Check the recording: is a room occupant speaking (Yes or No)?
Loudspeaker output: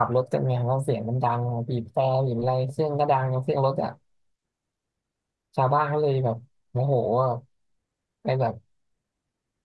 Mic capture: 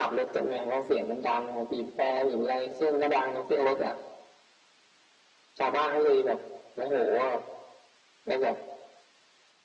No